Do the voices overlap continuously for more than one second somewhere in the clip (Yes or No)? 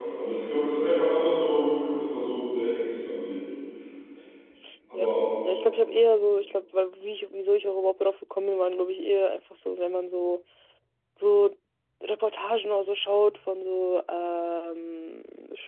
No